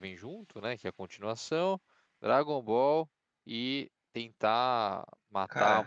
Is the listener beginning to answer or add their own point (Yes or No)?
No